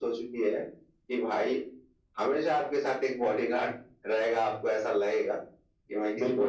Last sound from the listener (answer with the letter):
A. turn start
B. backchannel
A